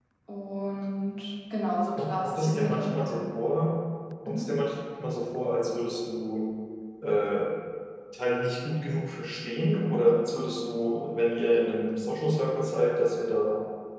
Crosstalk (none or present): present